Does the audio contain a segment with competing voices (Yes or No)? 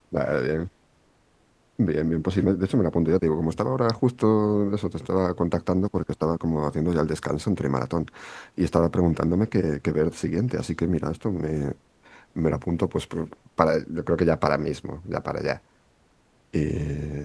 No